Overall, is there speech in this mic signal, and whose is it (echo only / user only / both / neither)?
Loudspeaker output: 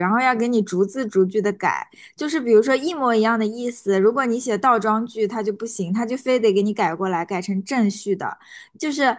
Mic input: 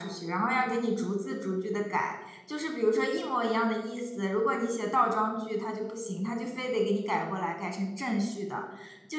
echo only